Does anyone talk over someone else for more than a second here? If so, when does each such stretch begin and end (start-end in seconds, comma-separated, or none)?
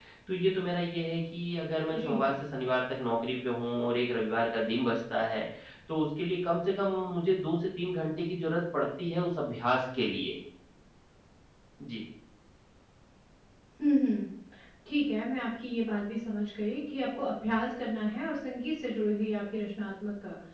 none